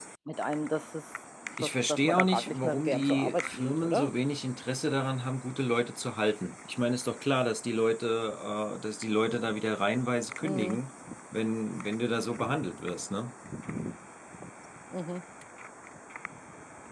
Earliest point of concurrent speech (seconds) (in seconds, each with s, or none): 1.6 s